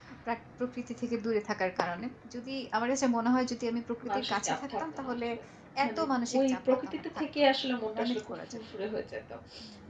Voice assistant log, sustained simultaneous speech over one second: present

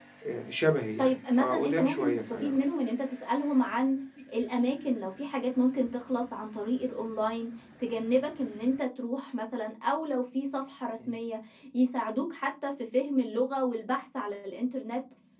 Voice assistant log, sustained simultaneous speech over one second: present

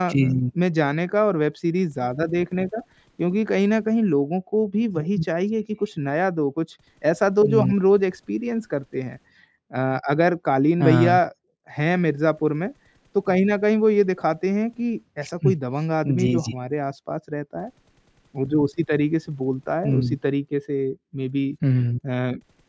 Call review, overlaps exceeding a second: none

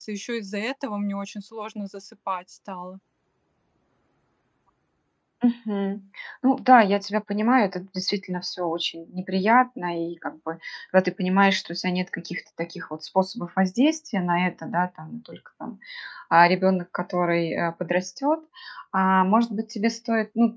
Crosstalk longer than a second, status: none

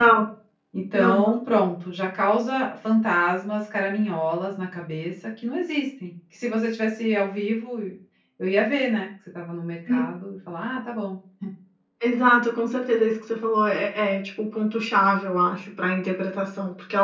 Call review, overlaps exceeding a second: none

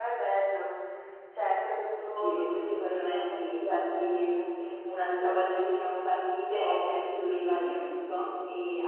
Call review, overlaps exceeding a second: present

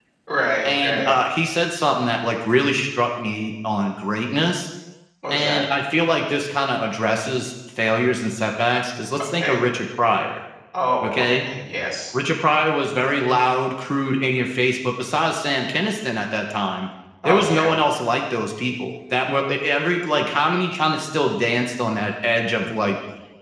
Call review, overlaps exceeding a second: none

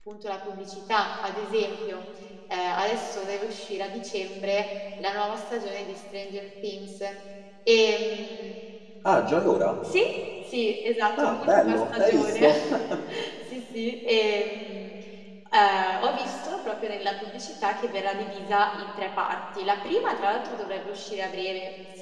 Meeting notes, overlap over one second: present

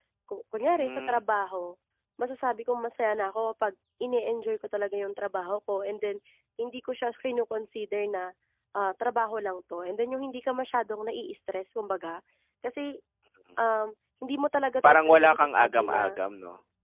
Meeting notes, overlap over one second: present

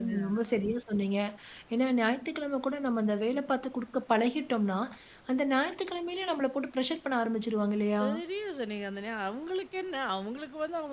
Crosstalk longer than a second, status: none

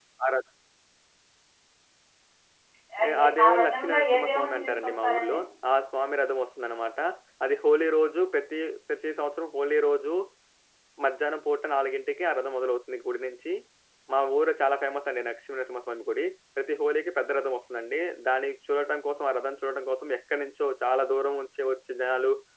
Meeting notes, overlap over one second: present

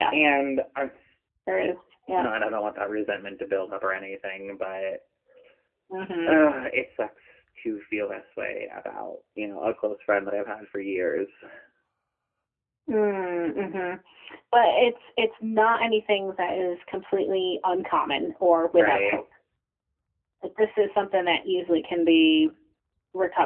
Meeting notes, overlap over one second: none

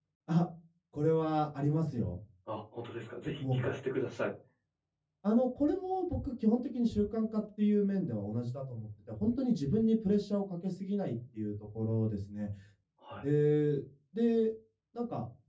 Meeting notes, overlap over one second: none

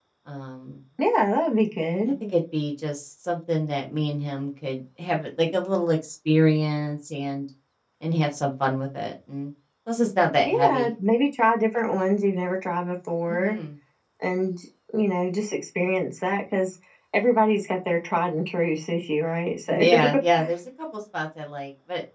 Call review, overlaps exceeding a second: none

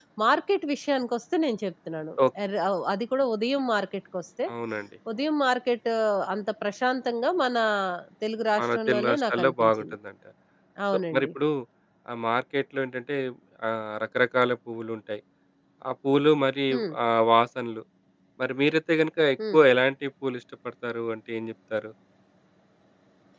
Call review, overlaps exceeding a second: present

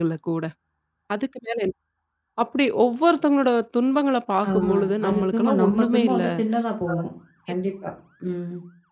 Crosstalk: present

